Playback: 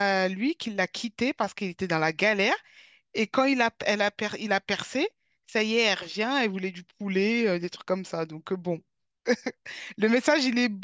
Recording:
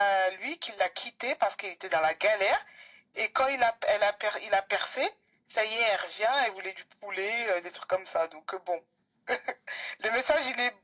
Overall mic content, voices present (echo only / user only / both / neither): echo only